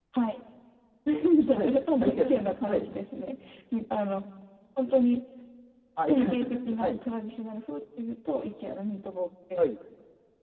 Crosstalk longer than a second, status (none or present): present